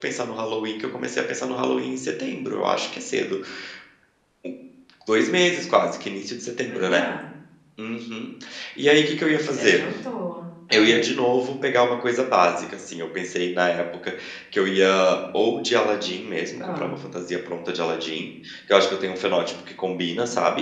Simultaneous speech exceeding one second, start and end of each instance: none

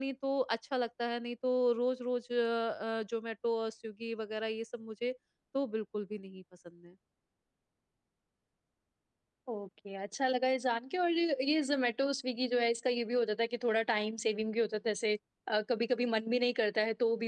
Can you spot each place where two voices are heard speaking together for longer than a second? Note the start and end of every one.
none

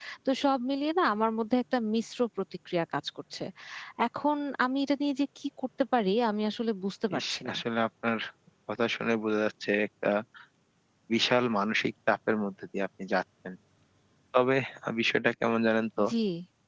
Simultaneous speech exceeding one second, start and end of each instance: none

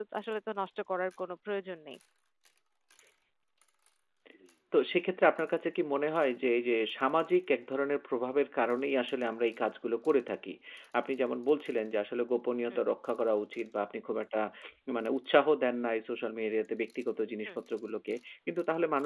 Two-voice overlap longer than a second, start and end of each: none

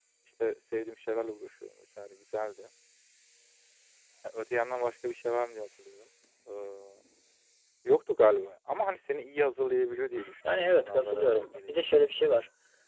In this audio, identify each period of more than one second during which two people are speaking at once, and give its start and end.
10.5-12.3

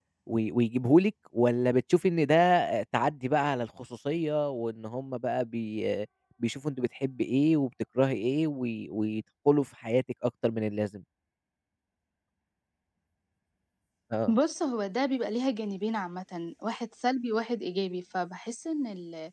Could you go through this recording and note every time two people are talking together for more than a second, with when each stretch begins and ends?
none

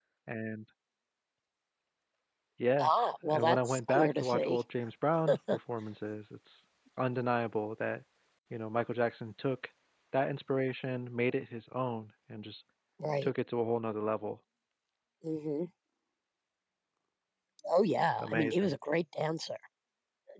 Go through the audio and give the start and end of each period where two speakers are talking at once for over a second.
3.3-4.6

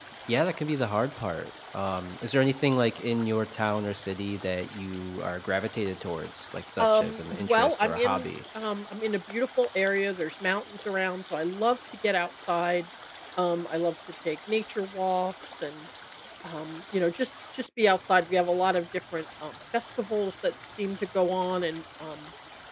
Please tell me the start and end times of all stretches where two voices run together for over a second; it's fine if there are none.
6.8-8.3

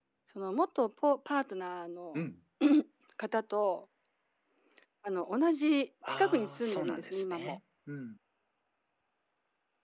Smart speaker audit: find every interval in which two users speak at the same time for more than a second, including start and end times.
6.1-7.6

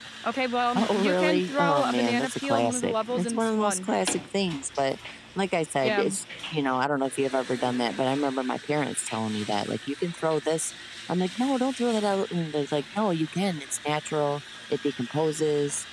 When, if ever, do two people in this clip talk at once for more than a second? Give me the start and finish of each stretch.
0.8-3.9

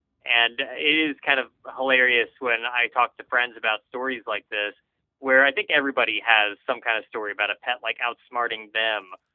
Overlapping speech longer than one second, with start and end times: none

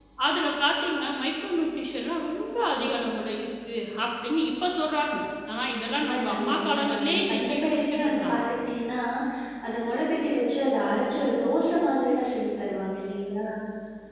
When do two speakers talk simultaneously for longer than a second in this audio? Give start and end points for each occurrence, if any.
5.9-8.4

